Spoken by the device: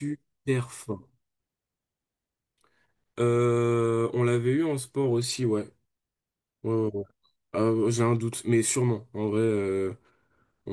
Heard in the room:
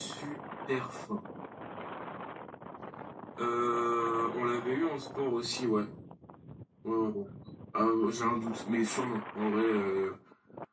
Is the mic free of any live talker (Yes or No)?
Yes